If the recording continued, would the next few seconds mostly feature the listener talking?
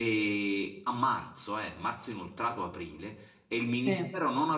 No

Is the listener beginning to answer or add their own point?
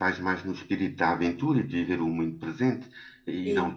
No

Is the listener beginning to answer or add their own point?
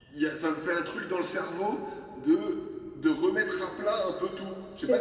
Yes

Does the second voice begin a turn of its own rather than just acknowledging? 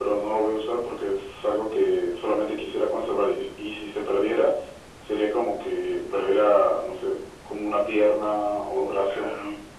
No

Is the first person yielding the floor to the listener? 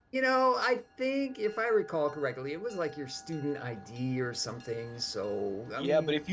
Yes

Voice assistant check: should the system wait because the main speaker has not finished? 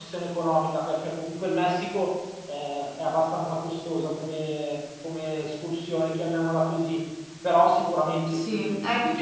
No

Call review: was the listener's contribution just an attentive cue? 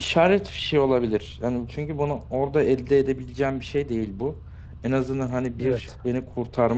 Yes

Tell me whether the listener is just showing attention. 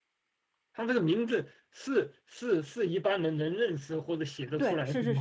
No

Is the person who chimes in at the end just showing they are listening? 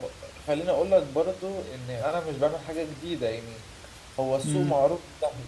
Yes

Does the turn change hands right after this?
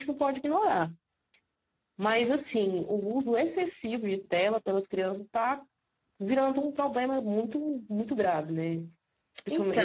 No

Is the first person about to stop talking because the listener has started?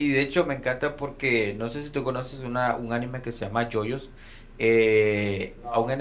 No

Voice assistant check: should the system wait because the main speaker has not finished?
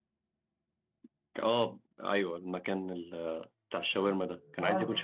Yes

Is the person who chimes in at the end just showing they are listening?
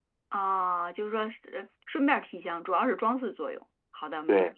No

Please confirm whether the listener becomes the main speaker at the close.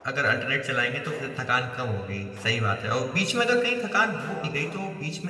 No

